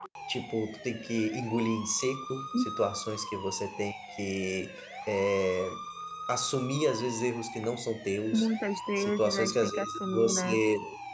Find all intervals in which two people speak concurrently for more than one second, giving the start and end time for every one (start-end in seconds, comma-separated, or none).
9.0-10.6